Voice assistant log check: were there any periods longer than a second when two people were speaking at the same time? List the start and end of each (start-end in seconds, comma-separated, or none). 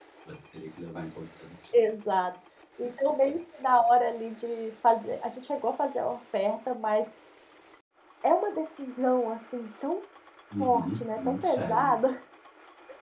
10.6-12.0